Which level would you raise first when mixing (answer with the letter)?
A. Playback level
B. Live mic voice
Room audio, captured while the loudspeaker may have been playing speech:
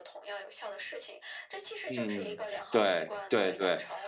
A